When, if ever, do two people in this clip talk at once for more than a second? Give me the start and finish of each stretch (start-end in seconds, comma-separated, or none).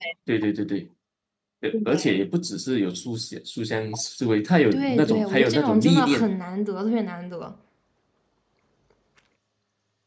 4.7-6.3